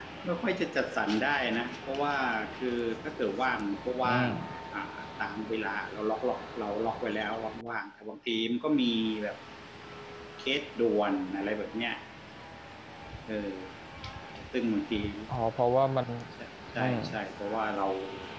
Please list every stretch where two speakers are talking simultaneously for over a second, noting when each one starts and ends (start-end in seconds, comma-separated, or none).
none